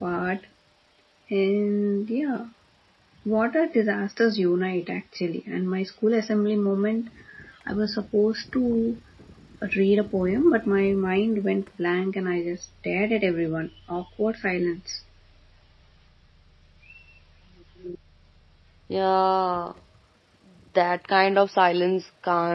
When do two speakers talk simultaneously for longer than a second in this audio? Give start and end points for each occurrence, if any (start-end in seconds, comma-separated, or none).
none